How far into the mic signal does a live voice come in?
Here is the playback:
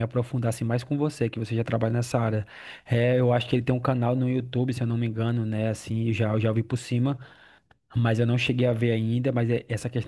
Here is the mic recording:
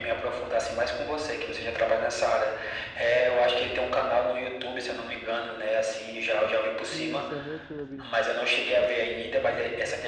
7 s

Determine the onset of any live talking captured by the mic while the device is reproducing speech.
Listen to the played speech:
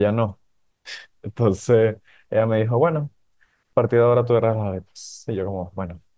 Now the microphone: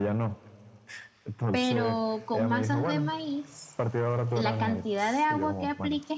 2 s

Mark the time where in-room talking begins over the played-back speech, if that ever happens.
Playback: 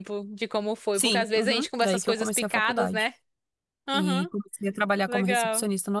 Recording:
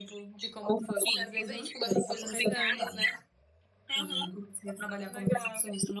2 s

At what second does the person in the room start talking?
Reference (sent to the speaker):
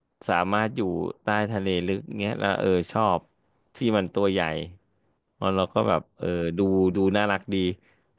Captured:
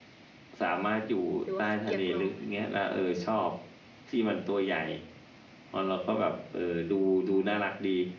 1 s

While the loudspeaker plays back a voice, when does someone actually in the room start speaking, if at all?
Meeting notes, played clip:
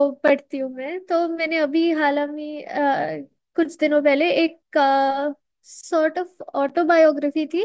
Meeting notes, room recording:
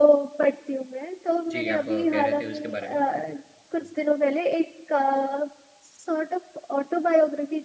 2 s

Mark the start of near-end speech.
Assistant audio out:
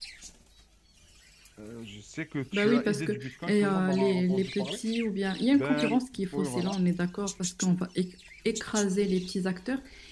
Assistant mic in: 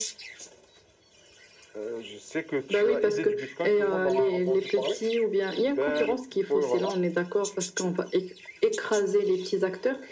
none

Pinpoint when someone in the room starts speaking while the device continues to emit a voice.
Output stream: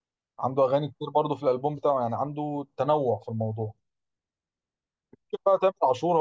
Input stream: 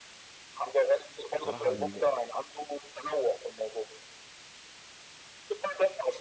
1 s

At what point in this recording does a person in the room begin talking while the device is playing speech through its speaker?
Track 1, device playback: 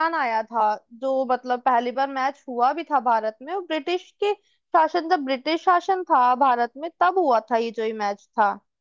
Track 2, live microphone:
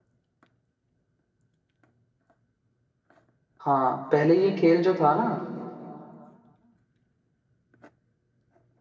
4 s

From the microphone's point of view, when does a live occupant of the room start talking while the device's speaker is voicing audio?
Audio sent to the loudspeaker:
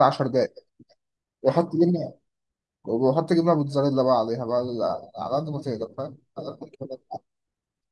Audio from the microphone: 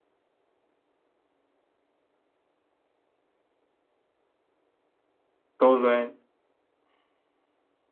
6 s

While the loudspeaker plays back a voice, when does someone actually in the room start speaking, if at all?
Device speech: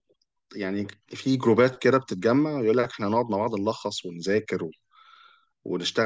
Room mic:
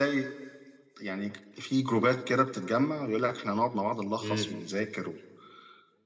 4 s

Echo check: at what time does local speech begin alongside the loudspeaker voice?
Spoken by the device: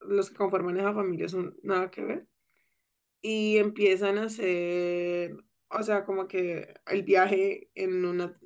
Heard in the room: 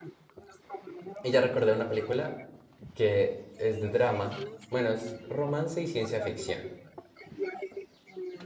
1 s

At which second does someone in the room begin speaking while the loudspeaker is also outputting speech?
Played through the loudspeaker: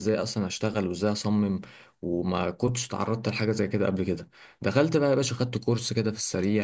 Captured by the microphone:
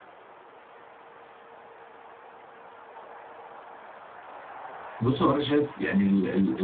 5 s

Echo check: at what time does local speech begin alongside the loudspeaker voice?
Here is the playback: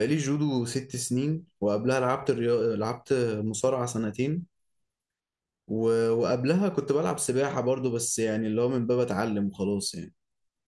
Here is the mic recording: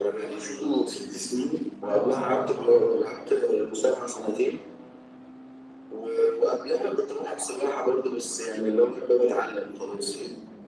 2 s

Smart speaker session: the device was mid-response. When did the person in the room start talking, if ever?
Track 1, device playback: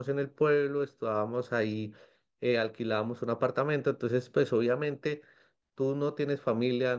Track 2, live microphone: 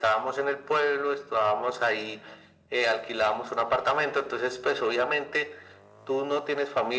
none

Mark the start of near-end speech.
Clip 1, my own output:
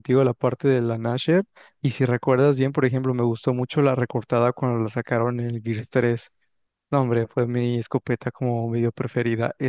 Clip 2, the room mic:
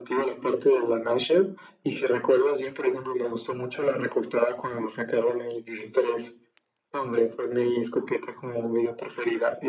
none

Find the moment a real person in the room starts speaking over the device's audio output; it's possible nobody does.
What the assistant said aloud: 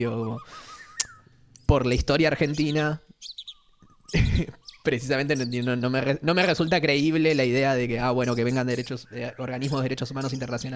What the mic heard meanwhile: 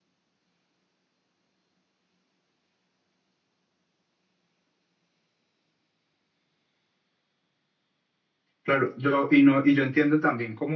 9 s

